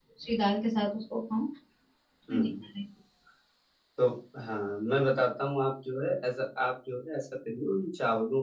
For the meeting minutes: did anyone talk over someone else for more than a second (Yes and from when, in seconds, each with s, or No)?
No